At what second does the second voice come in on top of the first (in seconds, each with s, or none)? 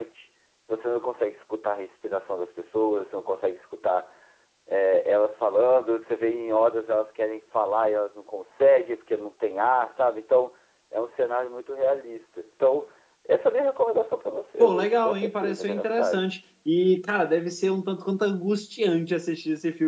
14.6 s